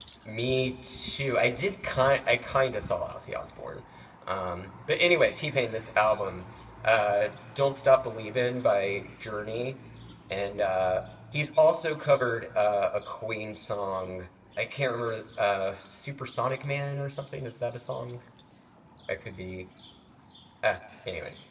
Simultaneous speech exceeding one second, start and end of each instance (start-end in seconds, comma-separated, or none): none